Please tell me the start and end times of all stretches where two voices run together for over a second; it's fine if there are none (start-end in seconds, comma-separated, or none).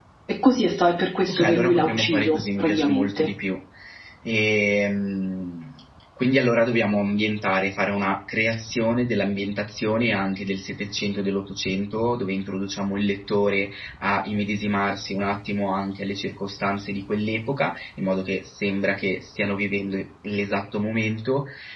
1.3-3.3